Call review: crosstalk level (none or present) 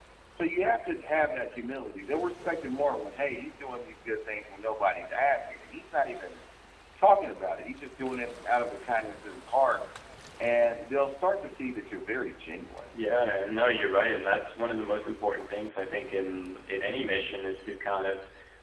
none